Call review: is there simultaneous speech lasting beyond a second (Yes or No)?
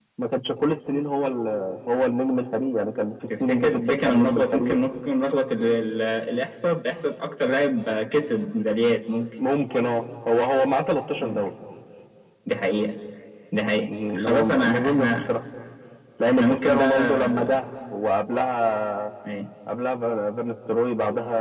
Yes